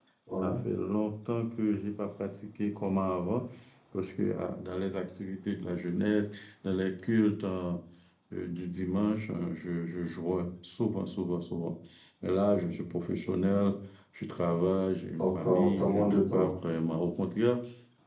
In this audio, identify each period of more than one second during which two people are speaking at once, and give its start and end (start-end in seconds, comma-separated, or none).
15.2-16.5